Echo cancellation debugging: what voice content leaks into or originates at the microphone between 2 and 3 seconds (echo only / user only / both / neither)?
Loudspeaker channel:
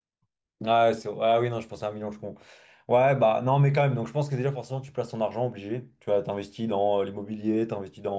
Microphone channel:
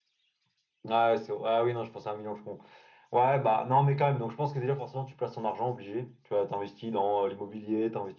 echo only